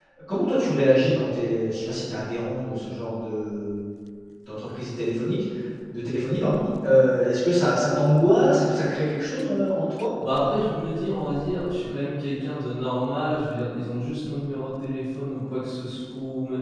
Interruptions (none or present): none